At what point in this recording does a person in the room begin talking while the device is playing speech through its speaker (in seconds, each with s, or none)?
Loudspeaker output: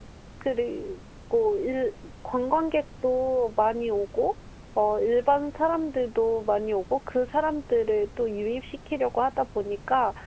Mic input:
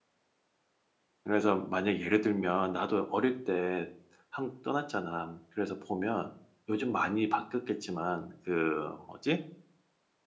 1.2 s